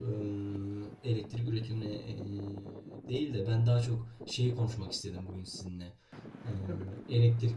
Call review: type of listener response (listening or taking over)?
listening